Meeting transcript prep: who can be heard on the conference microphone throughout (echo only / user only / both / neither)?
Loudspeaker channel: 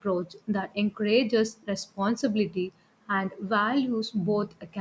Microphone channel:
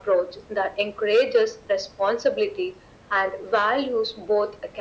echo only